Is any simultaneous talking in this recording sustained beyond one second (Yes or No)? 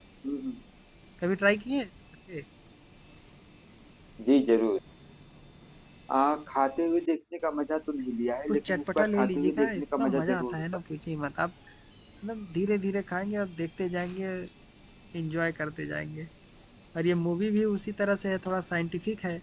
Yes